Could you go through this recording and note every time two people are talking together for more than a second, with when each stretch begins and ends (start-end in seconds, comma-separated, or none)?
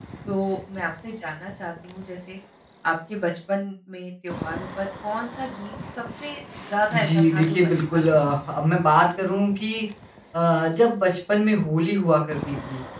6.9-8.3